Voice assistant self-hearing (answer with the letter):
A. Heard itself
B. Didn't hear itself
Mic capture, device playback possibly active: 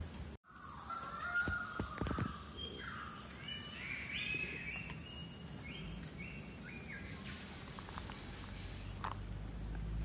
B